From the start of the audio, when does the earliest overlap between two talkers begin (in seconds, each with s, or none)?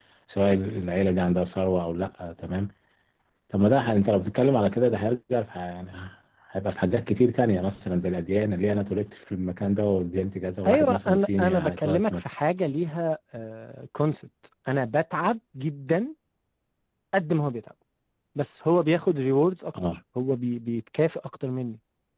10.7 s